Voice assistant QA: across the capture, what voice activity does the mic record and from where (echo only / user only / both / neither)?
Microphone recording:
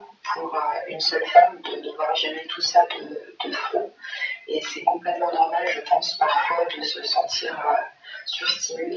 echo only